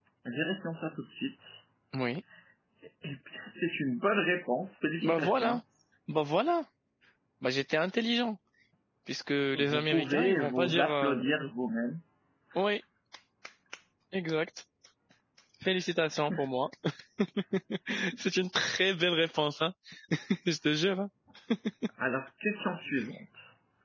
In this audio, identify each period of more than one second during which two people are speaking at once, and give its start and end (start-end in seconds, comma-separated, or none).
9.5-11.2